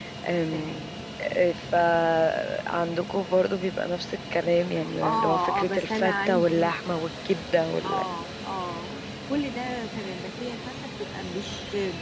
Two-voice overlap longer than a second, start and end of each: 5.0-6.8

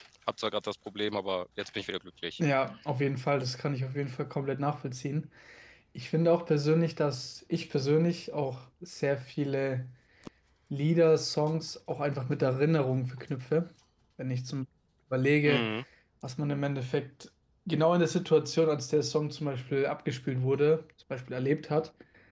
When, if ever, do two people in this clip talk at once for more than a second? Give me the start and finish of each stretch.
none

